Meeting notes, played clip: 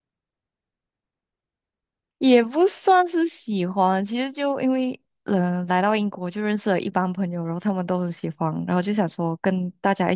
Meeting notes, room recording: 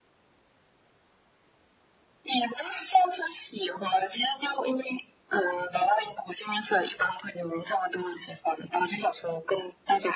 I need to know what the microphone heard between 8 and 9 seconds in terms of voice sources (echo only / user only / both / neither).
echo only